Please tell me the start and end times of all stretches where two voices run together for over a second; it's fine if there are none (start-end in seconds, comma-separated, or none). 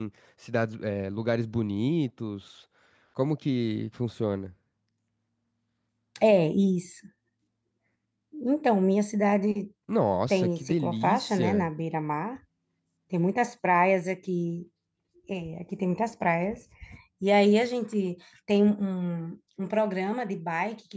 10.3-11.7